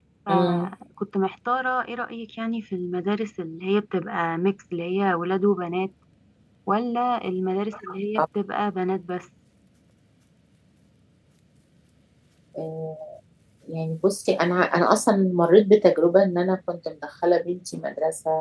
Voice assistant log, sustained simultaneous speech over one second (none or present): none